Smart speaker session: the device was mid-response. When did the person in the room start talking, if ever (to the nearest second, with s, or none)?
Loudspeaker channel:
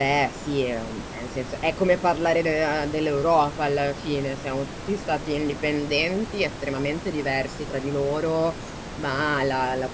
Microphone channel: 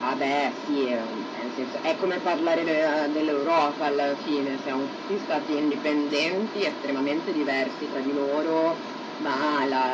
none